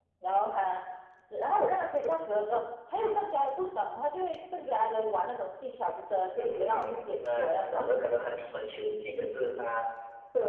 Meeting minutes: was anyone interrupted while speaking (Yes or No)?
Yes